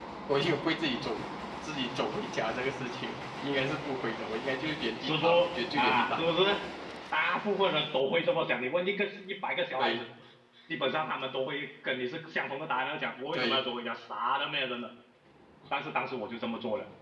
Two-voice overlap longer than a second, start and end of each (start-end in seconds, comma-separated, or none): 5.0-6.3